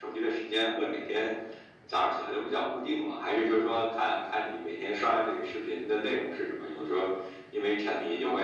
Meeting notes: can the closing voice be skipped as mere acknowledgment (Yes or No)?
No